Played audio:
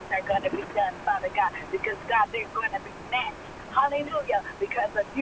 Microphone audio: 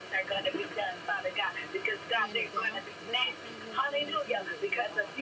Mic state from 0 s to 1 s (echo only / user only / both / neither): echo only